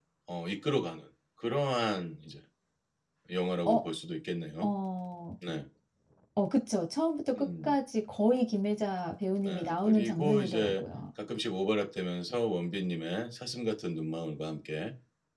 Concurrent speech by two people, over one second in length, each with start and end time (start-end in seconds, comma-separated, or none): 9.4-10.8